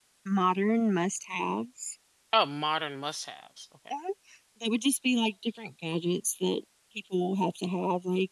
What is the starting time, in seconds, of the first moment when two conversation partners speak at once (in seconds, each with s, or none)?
none